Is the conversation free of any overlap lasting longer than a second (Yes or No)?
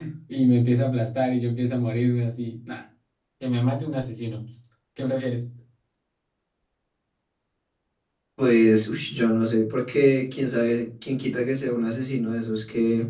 Yes